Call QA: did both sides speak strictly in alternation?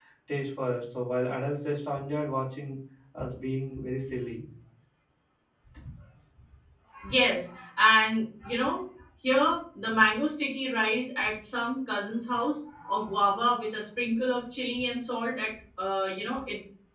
Yes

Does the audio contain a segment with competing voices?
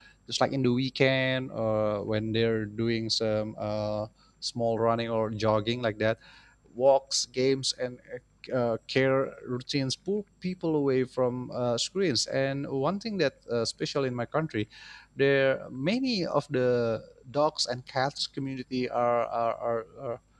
No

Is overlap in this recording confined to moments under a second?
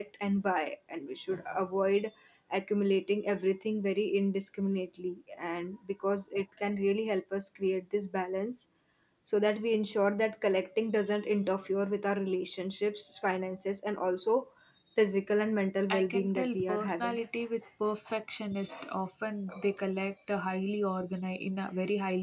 No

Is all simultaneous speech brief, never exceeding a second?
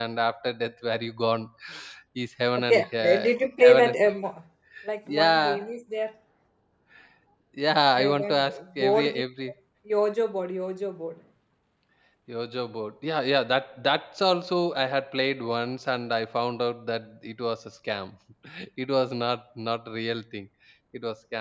No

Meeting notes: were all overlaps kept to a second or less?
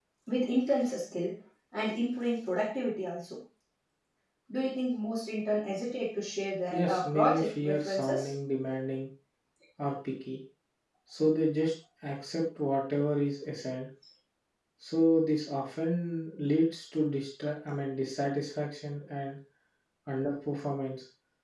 No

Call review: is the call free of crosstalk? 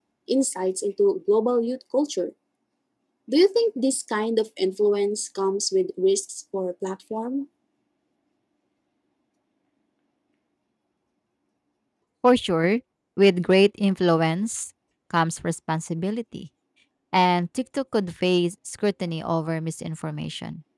Yes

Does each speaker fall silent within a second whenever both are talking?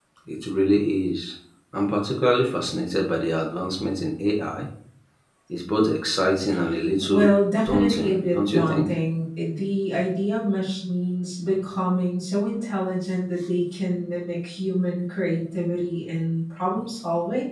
No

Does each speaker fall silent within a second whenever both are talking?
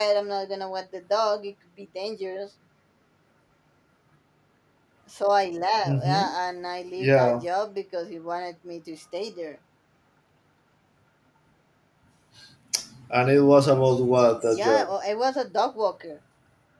Yes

